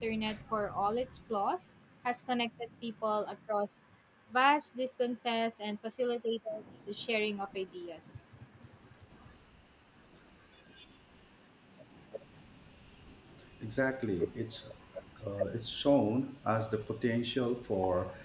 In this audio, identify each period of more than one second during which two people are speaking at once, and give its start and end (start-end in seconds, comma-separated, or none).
none